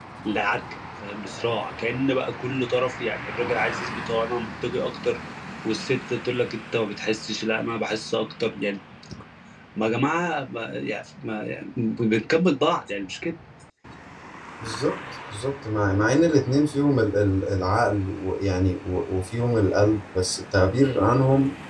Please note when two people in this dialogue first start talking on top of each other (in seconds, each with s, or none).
none